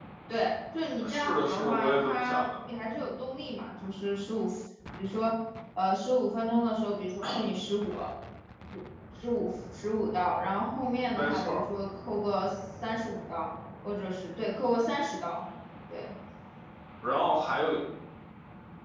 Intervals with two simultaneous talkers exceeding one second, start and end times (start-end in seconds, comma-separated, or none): 1.0-2.4